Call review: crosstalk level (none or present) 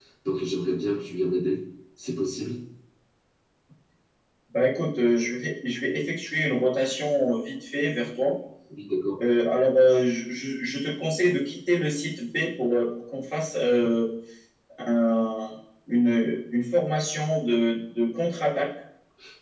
none